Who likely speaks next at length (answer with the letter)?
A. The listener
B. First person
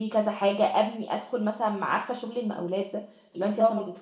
B